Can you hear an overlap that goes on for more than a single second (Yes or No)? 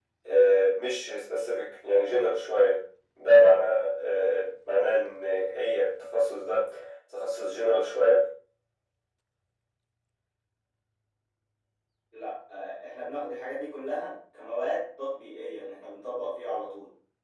No